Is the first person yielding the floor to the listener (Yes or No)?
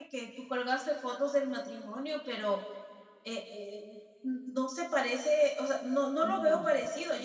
No